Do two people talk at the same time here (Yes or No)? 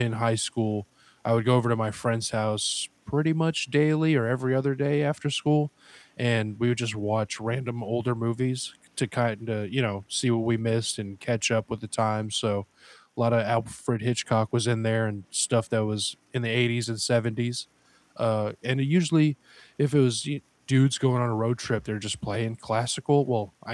No